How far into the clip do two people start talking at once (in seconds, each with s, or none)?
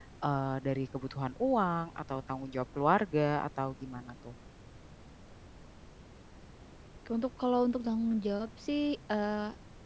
none